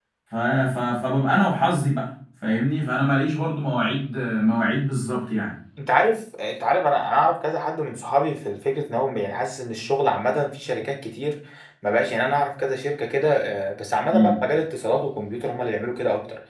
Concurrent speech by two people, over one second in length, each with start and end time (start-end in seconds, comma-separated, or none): none